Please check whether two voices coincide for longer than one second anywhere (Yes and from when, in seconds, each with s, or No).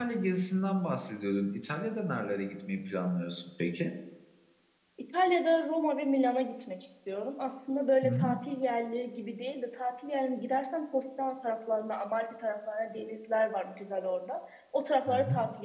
No